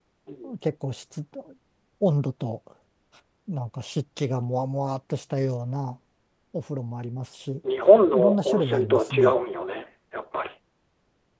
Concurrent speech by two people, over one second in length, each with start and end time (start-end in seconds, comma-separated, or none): 8.1-9.3